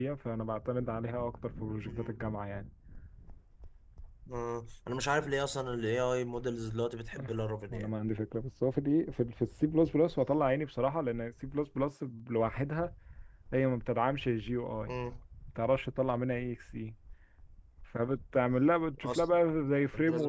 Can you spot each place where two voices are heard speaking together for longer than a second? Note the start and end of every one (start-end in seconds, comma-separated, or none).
none